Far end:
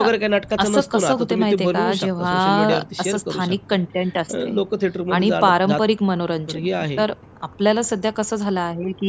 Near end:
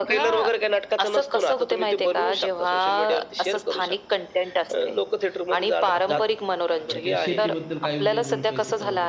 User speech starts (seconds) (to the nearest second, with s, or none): 6 s